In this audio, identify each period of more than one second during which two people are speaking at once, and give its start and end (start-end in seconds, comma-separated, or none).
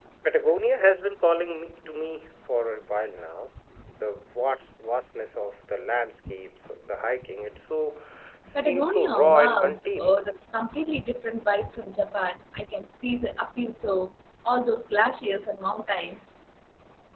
8.5-10.2